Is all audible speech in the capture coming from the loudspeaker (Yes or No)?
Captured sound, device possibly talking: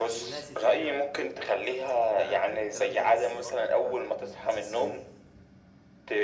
No